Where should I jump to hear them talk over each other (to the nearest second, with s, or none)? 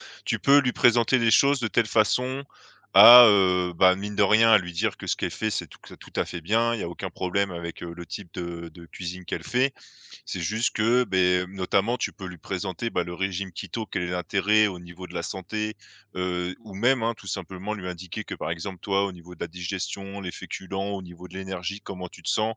none